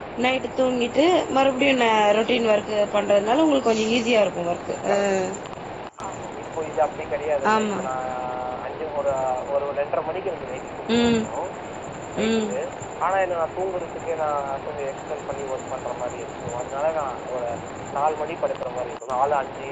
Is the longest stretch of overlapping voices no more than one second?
Yes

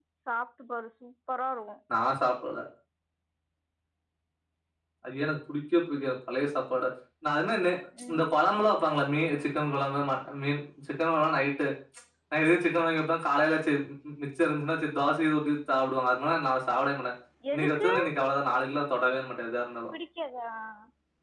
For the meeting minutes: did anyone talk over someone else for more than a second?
No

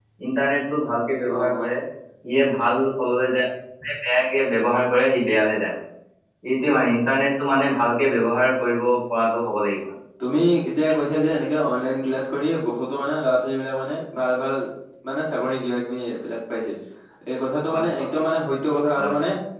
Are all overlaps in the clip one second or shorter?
Yes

